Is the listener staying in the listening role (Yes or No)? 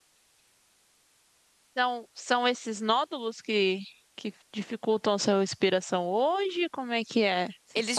No